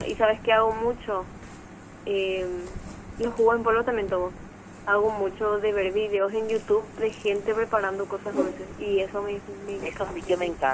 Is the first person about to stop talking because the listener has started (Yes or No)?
Yes